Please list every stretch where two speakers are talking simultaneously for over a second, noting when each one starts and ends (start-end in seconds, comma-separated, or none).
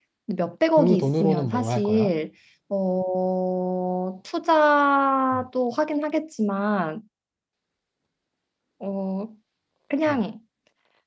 0.8-2.1